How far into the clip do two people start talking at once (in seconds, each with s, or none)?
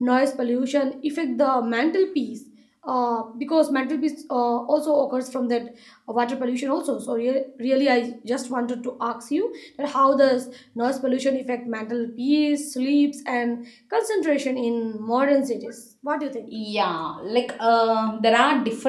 none